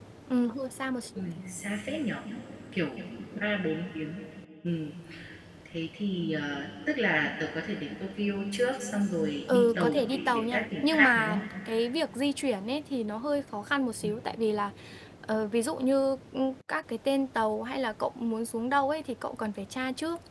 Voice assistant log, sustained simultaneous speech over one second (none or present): present